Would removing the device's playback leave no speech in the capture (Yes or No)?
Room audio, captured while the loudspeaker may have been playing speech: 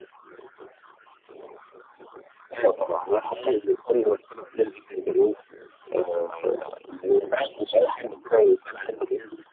No